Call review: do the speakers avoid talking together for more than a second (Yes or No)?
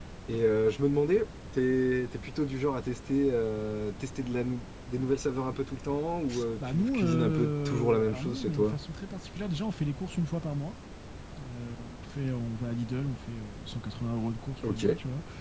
No